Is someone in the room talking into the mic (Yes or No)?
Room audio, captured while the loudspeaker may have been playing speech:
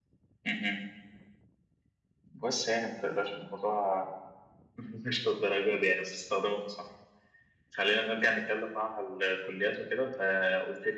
No